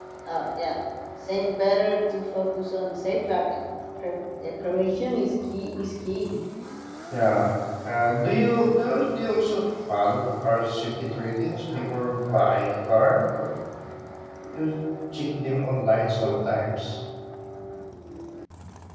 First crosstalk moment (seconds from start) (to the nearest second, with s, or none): none